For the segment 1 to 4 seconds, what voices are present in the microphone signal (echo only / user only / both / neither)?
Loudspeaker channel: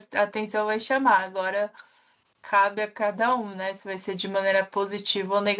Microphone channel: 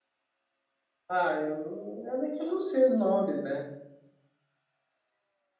user only